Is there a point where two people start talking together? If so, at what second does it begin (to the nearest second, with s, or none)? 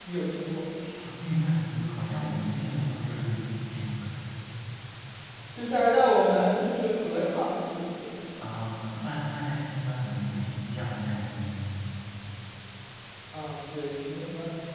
none